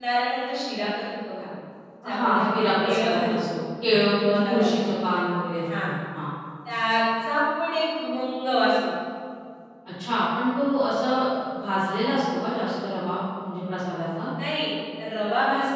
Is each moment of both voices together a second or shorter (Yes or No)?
No